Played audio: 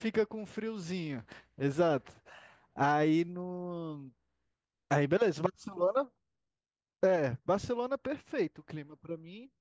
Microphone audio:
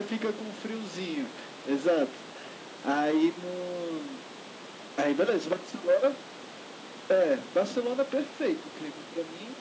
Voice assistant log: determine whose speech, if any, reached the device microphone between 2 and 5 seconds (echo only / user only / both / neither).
echo only